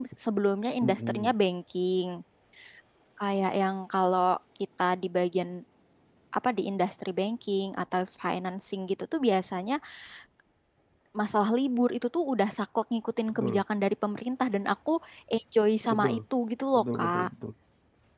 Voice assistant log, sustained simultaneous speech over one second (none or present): none